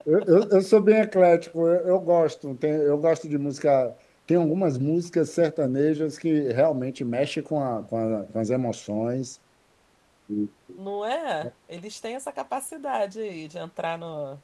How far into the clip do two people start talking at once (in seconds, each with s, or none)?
none